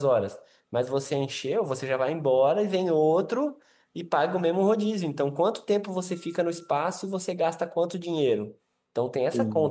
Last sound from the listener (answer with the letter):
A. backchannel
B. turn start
A